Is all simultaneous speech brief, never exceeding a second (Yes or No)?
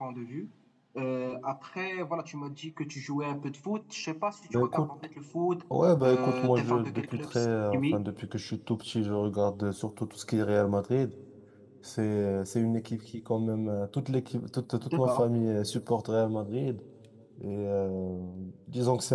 No